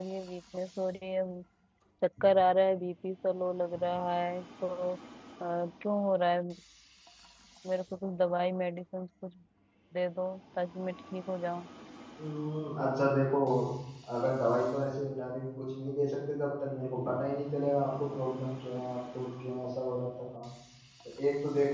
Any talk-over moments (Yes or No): No